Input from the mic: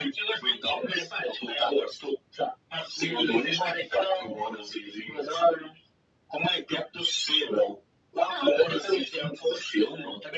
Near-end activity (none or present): present